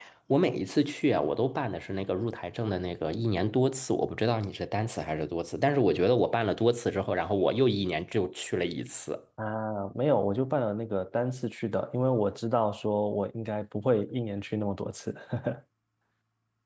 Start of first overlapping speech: none

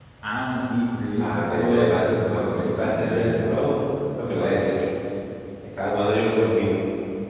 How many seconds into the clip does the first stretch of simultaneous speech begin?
1.2 s

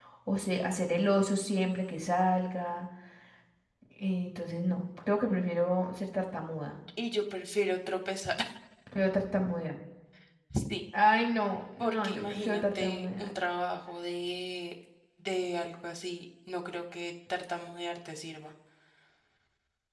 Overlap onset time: 11.8 s

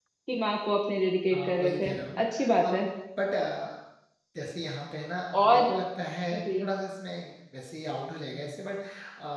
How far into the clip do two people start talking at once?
1.3 s

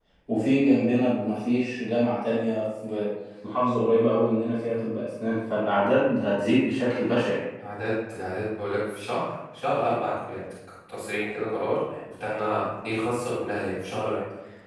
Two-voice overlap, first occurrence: none

